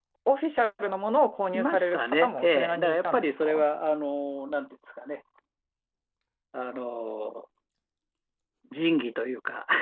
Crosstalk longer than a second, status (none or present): present